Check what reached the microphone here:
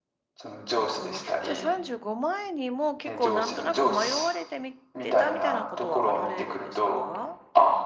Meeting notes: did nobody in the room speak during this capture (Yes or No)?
No